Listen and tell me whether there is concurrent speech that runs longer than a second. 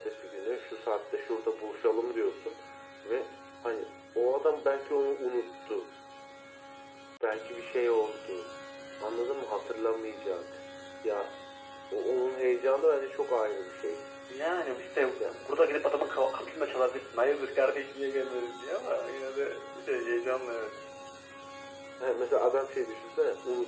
No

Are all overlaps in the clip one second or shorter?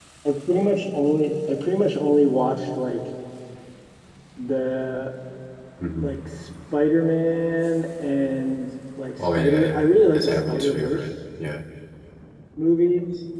No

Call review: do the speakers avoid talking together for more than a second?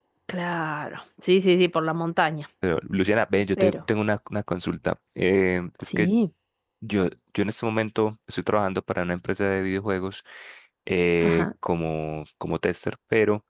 Yes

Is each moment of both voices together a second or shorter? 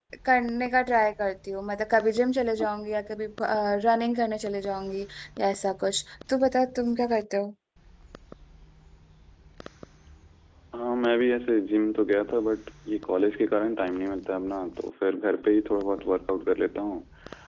Yes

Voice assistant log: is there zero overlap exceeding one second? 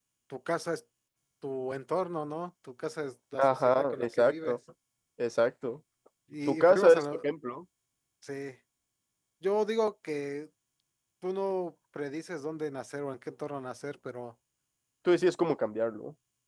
No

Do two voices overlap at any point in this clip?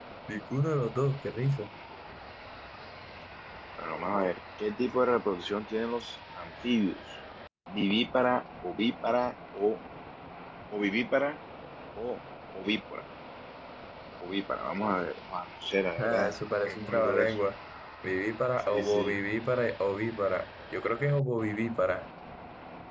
Yes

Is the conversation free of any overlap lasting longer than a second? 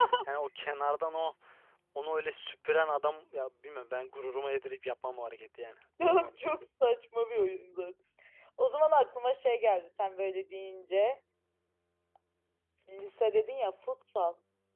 Yes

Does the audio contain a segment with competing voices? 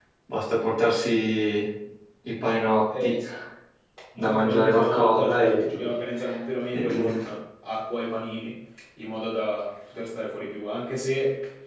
Yes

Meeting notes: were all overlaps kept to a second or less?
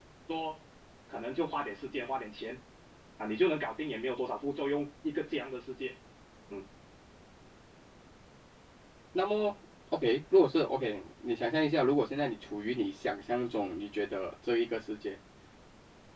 Yes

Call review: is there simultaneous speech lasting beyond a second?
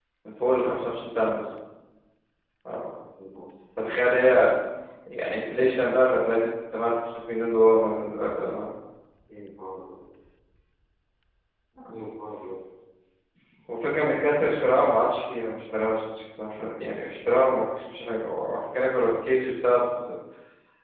No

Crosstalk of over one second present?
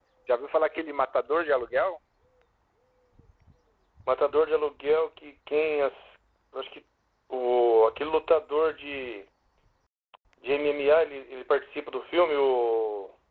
No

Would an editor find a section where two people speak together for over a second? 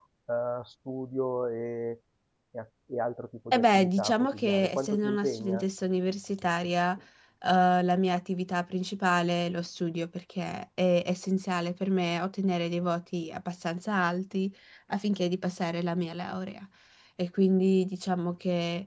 Yes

